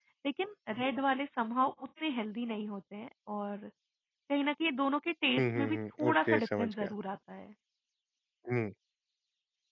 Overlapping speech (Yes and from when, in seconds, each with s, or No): Yes, from 5.4 s